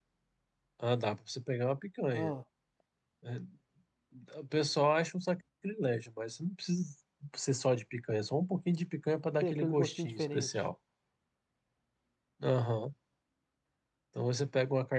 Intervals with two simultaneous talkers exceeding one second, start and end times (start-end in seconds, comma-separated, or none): 9.4-10.6